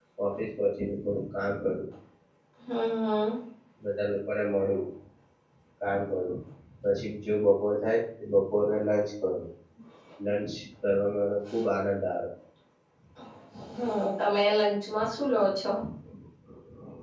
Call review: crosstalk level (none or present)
none